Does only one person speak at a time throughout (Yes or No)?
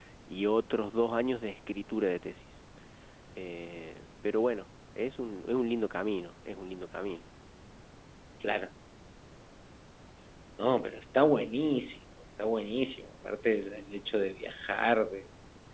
Yes